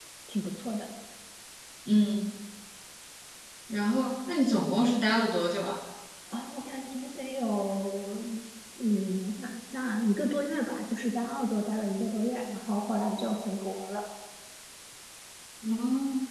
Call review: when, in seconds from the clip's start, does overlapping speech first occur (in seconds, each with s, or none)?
none